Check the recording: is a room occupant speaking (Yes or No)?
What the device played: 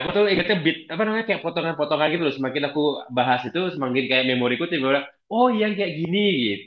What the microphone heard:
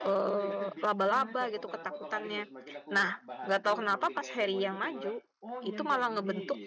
Yes